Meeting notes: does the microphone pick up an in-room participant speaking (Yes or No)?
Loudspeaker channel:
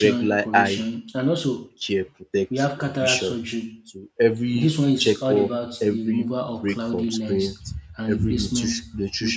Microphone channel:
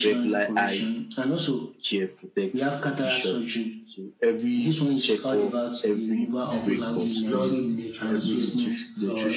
Yes